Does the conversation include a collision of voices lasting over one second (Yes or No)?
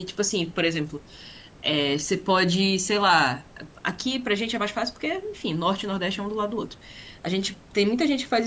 No